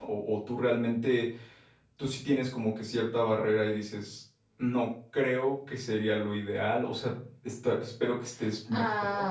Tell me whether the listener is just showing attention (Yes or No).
No